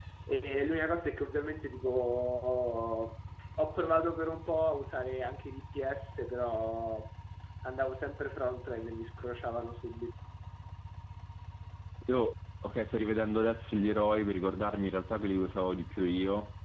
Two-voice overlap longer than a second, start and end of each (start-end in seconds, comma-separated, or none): none